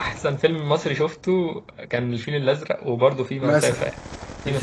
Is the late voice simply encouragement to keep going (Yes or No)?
No